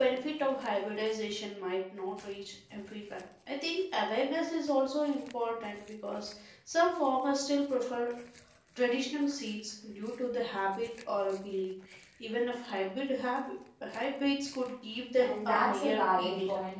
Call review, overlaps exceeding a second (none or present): present